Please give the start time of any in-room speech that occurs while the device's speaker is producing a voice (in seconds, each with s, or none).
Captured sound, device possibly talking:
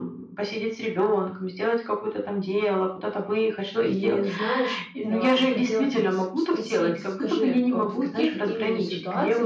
3.8 s